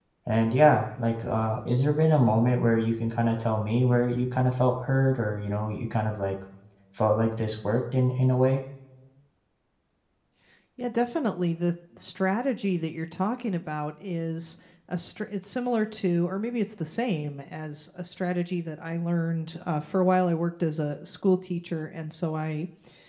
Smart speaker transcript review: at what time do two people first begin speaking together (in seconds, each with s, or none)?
none